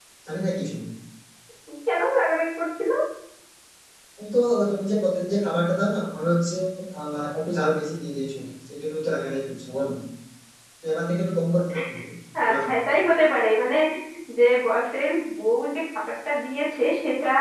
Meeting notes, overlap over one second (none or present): none